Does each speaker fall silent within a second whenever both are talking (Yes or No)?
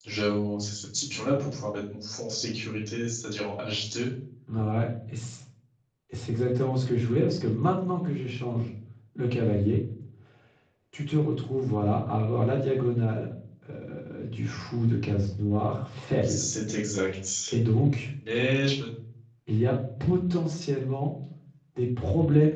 Yes